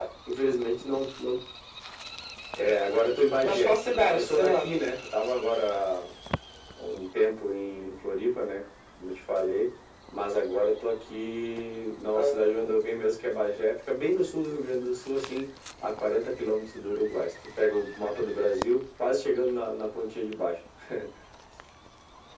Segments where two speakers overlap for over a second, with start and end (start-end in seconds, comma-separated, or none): 3.4-4.7